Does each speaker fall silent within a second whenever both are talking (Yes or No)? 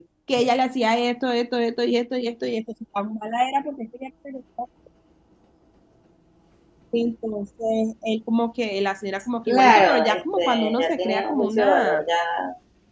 No